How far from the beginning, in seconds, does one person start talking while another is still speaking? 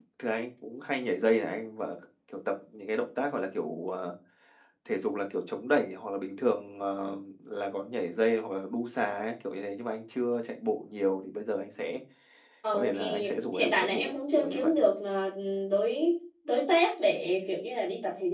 12.7 s

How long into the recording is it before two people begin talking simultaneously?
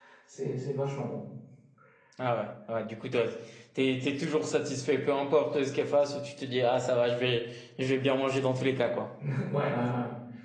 none

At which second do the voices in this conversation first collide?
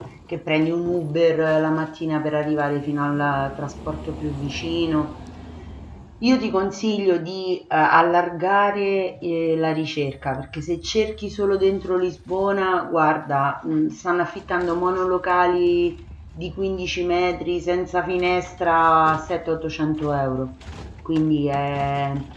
none

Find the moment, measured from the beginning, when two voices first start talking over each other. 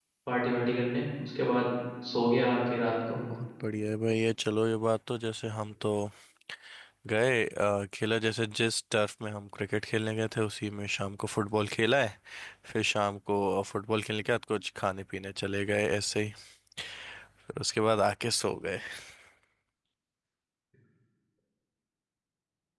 none

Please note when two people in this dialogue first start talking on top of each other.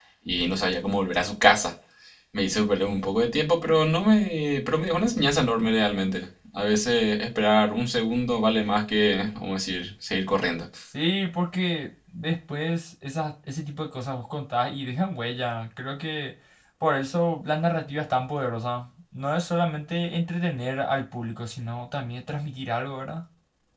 none

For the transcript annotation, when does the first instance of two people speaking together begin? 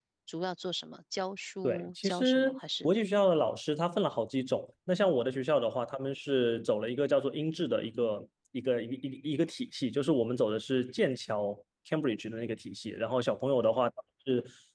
1.6 s

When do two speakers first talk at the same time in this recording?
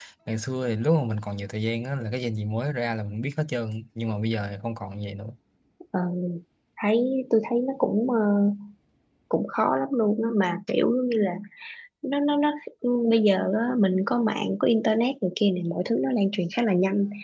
none

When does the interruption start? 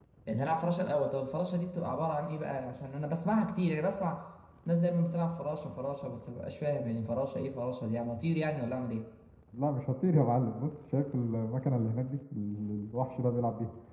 none

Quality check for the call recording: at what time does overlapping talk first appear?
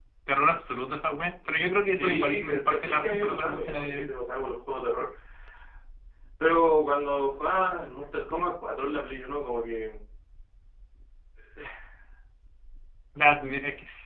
1.8 s

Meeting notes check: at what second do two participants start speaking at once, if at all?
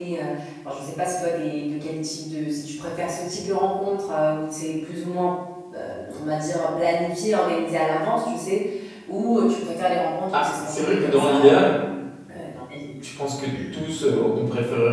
10.3 s

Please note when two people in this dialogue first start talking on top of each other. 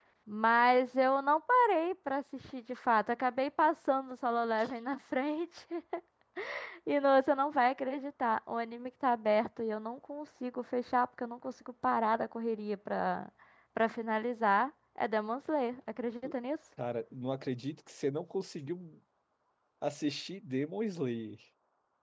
none

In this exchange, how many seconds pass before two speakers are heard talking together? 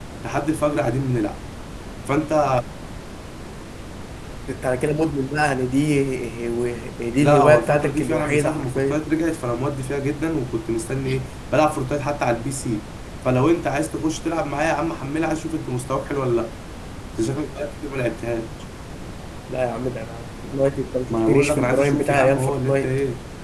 7.2 s

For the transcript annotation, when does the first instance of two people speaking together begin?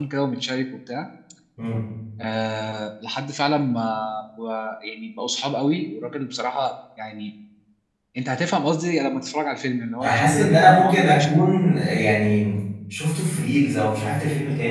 10.0 s

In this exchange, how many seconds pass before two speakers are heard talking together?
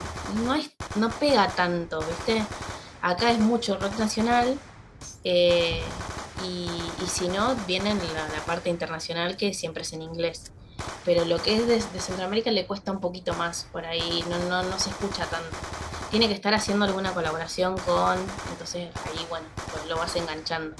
none

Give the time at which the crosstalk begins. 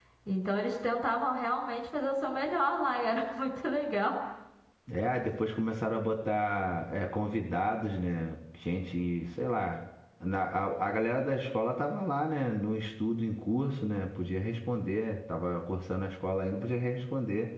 none

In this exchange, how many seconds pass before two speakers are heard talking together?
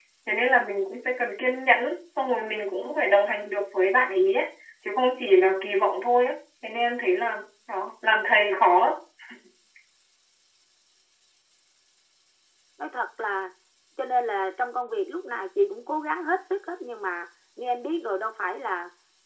none

